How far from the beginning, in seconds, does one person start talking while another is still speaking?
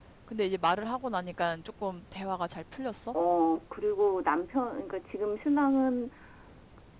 none

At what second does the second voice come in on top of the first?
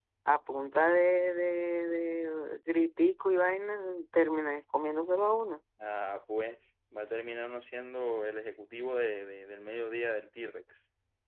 none

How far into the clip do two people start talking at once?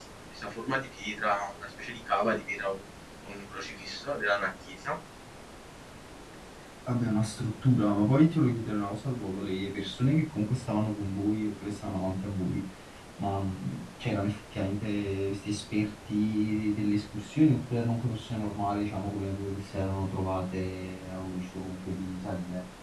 none

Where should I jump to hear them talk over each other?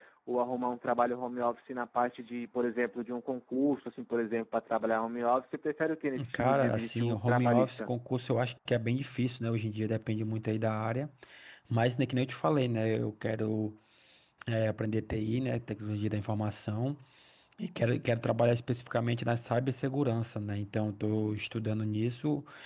6 s

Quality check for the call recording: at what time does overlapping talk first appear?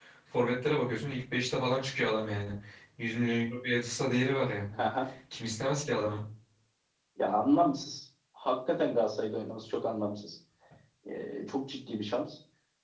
none

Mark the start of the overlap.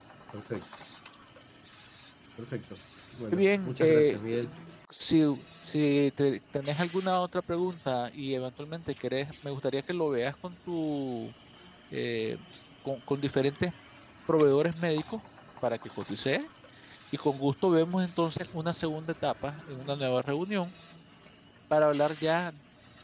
3 s

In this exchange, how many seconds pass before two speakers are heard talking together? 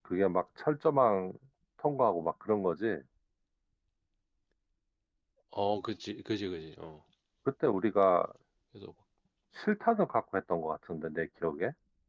none

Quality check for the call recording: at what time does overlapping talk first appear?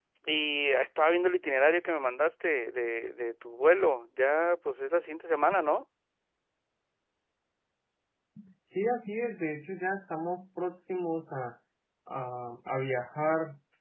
none

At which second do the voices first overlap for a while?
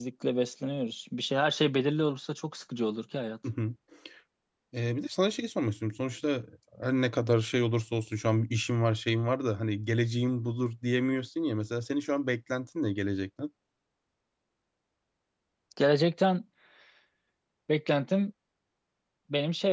none

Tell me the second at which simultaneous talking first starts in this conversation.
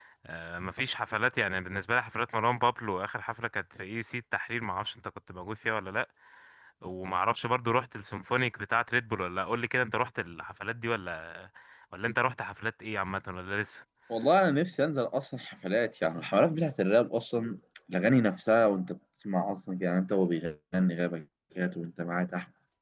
none

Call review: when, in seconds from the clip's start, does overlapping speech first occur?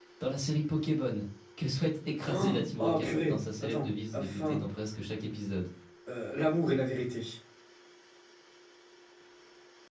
2 s

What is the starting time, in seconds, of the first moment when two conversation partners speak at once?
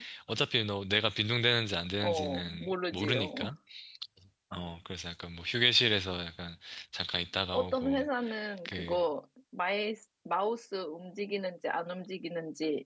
2 s

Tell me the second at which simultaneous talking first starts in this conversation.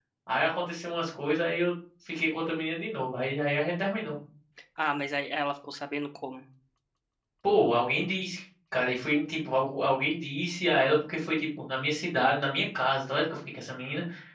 none

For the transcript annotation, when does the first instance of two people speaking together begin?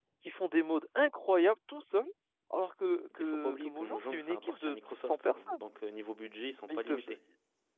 3 s

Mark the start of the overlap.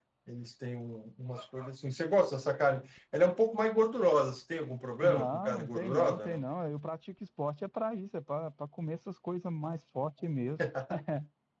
5 s

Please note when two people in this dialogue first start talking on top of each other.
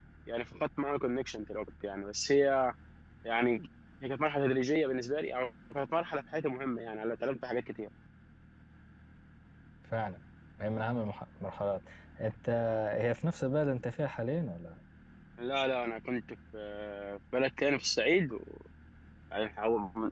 none

